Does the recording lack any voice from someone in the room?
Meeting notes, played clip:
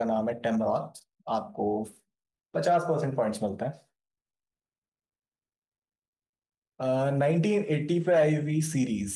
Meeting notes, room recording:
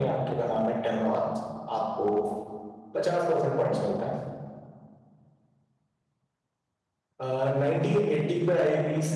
Yes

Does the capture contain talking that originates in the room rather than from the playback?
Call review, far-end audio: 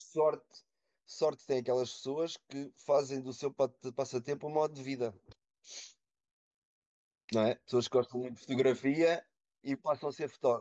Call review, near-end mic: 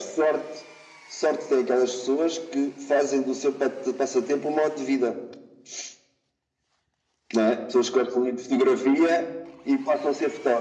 No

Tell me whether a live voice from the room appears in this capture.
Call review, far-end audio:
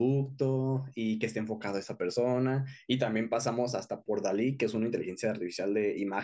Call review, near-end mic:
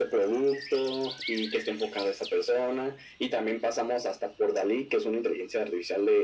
No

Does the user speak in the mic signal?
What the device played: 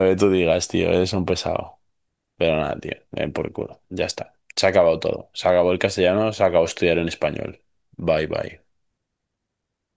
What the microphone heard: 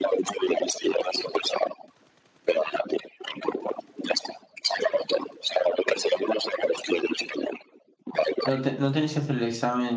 Yes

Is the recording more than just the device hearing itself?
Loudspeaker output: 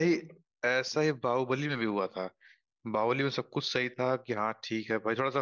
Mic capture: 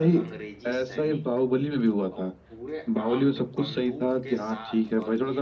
Yes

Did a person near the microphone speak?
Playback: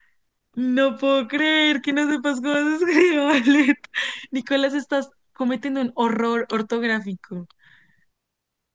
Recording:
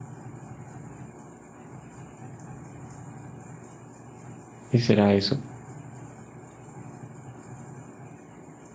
Yes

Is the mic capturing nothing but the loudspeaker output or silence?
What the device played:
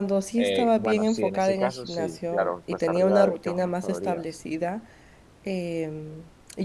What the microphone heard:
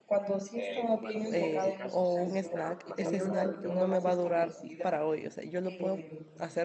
No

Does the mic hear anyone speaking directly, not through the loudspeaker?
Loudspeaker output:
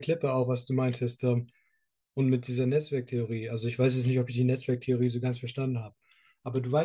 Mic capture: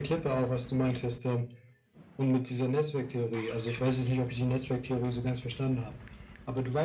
No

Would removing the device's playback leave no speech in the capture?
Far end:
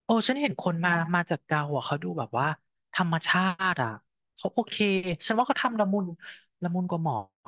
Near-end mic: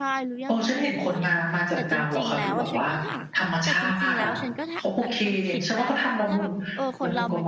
No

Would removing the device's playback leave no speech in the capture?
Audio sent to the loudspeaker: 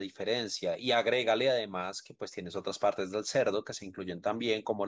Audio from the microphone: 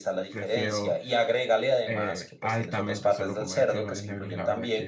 No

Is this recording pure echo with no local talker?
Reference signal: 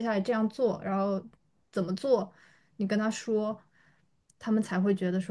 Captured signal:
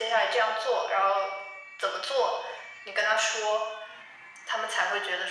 Yes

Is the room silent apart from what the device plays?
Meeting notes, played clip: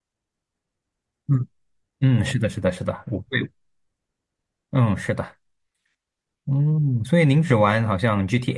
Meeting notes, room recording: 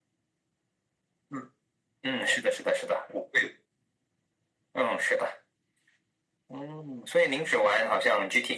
Yes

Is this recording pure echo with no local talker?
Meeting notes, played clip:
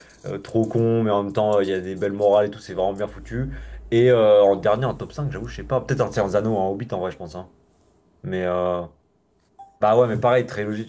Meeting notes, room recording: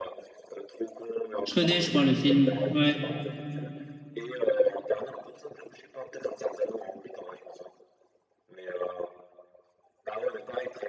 No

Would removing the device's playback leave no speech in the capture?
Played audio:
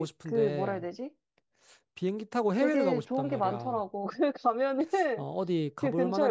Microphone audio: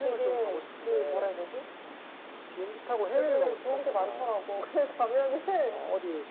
Yes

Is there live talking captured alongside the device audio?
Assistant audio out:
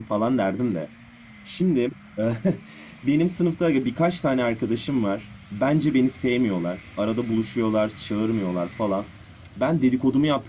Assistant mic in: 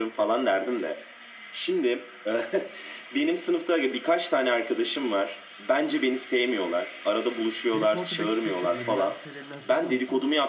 Yes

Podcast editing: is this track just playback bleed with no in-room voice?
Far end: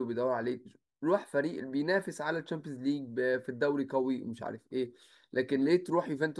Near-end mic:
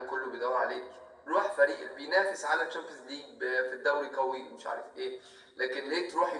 Yes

